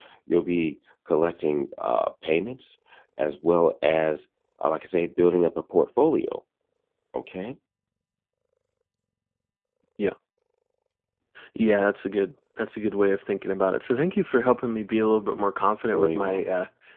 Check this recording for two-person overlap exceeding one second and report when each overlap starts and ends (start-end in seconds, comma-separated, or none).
none